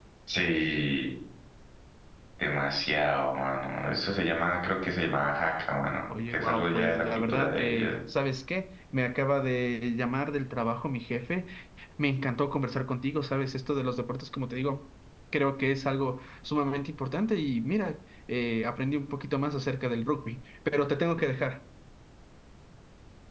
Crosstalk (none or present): present